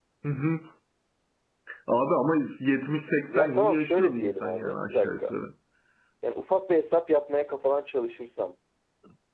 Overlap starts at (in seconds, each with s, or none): 3.3 s